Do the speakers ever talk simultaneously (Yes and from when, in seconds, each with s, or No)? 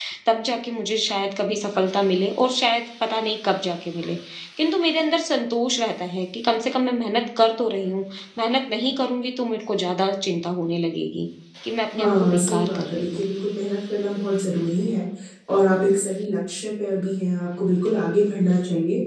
Yes, from 12.0 s